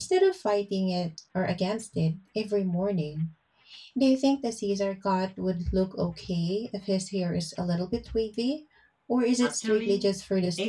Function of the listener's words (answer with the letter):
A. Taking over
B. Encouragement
A